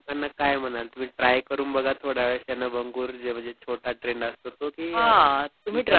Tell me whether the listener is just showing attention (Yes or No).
No